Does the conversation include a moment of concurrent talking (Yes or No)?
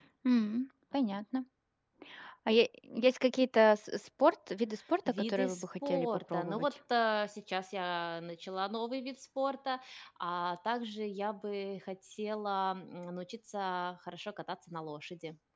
Yes